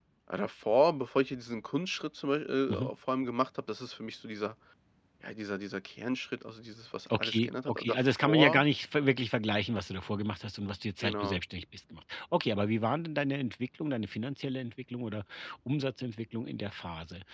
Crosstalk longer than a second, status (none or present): present